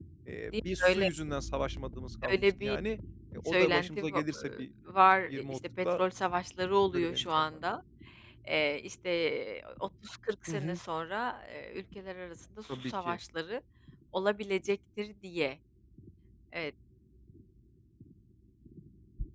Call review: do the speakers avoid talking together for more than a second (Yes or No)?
No